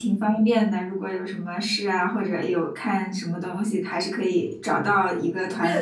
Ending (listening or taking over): taking over